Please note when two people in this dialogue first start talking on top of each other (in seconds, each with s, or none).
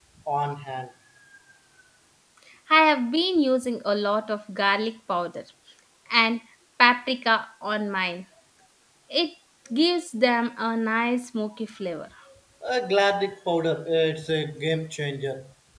none